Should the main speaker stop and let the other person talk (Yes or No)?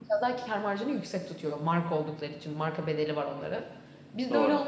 No